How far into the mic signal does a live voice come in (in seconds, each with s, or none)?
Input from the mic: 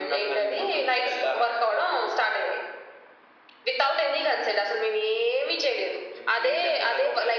none